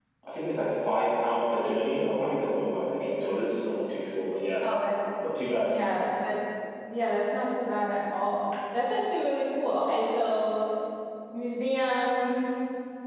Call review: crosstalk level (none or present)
none